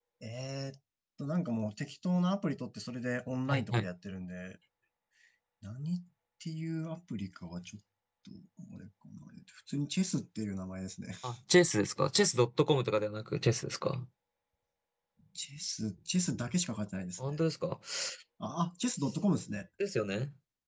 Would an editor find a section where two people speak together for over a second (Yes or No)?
No